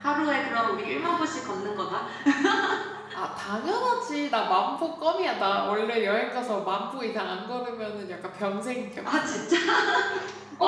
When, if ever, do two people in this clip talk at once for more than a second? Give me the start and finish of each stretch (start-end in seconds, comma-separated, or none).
none